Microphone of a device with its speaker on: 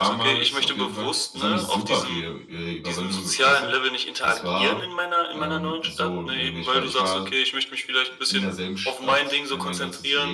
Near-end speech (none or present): present